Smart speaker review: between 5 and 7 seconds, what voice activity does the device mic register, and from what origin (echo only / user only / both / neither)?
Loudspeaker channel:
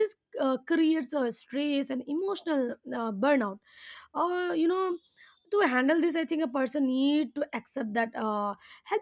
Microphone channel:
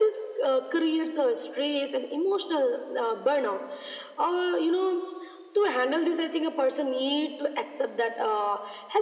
echo only